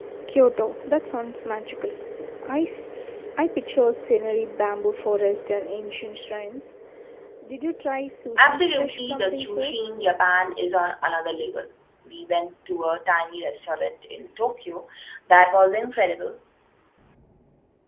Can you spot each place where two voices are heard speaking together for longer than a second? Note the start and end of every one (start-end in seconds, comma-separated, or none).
8.4-9.9